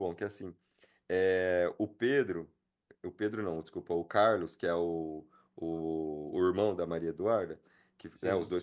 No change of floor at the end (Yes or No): Yes